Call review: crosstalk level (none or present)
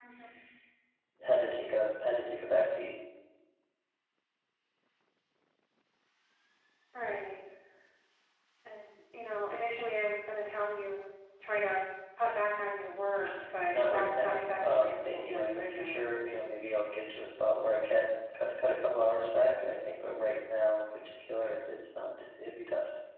present